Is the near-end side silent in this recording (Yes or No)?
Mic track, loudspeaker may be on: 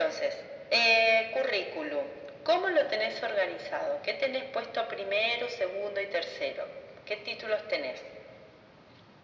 Yes